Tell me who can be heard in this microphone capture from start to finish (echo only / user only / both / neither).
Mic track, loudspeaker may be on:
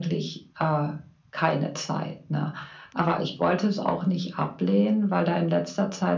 echo only